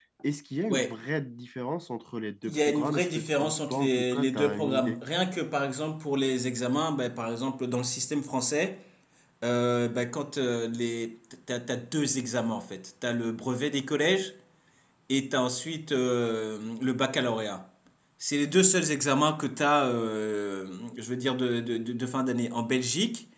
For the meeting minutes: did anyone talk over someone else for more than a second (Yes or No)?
Yes